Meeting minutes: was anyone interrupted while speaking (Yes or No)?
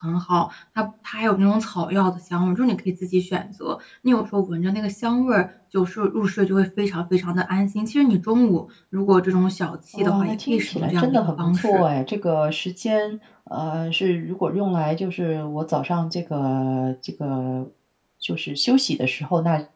Yes